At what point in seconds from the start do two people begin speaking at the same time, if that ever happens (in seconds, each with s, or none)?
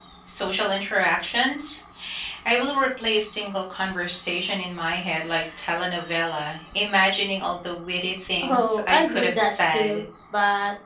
8.4 s